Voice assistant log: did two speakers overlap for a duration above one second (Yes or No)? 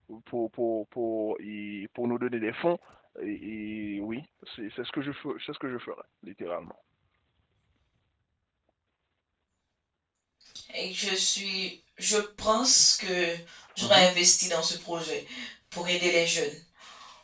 No